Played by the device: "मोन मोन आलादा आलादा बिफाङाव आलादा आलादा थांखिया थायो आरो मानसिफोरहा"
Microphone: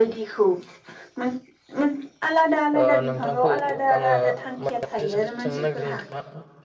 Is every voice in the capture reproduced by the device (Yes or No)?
No